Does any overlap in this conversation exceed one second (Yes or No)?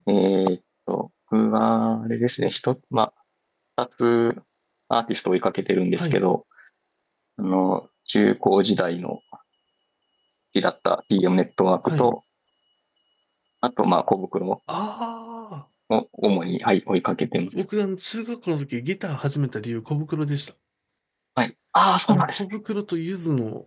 No